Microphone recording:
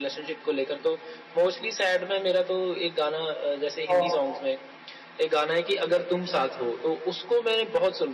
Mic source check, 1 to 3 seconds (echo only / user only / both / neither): echo only